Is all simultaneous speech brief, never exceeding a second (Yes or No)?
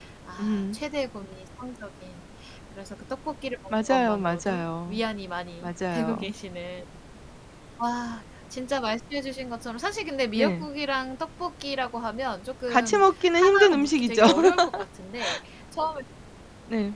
No